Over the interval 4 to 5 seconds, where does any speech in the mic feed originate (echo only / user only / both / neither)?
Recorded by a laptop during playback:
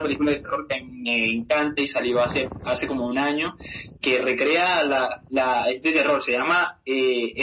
echo only